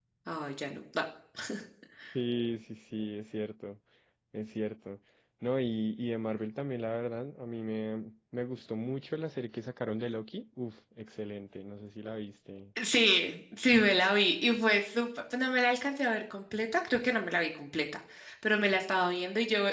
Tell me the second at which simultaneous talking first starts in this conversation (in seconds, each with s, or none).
none